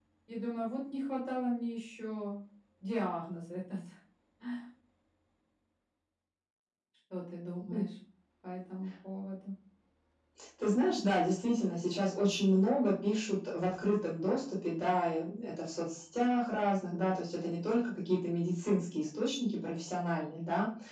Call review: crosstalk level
none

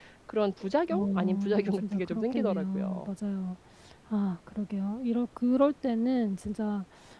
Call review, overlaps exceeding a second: present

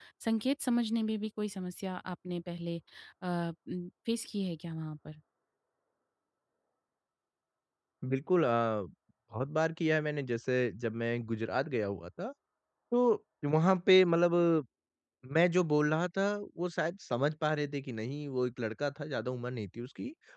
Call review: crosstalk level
none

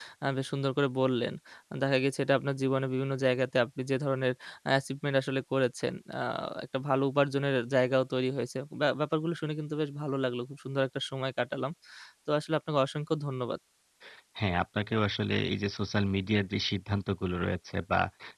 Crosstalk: none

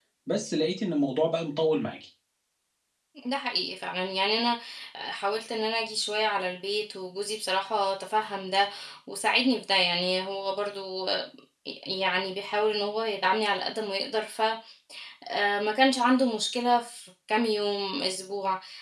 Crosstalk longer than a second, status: none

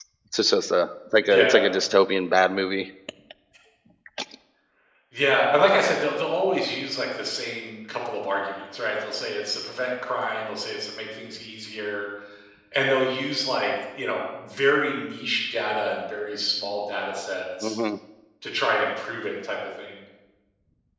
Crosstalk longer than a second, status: none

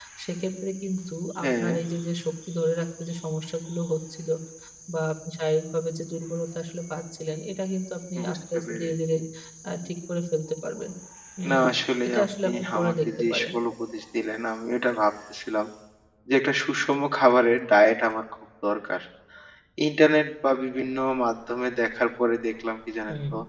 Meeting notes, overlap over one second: present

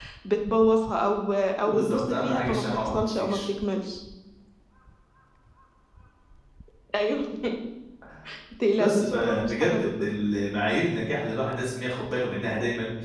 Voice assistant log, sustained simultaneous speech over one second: present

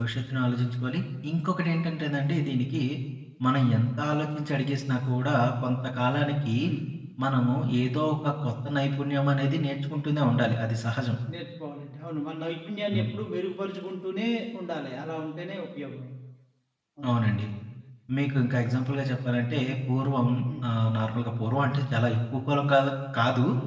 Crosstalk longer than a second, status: none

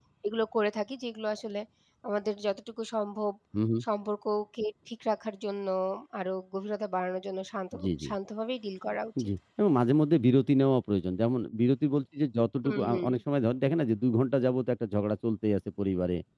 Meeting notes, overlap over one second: none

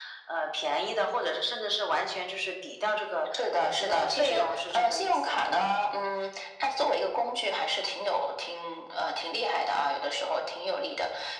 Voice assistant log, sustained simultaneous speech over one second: present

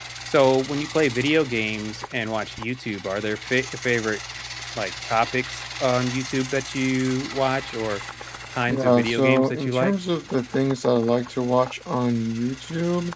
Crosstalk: present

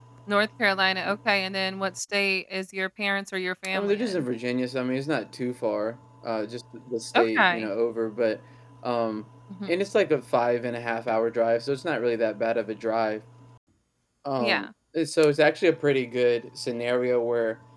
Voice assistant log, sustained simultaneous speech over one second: none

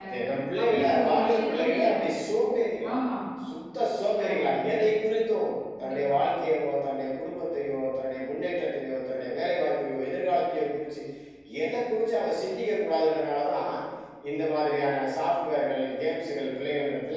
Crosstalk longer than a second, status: present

